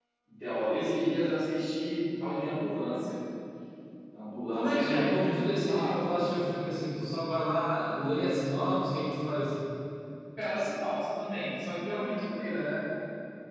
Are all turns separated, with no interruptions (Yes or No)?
No